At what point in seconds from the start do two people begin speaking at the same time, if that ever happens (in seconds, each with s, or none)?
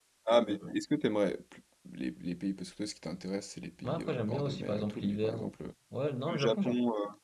3.8 s